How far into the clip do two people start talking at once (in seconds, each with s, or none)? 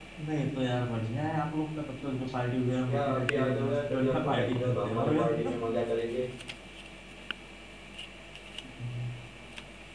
2.9 s